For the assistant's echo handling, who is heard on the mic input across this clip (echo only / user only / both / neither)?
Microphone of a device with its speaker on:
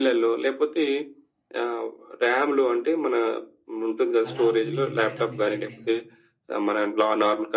both